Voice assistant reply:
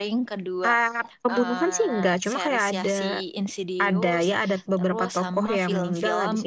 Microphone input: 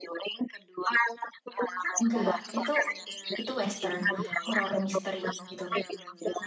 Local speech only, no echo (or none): Enggak, itu itu western horror misteri gitu.